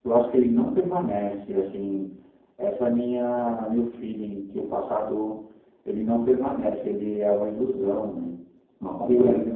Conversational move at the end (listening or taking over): taking over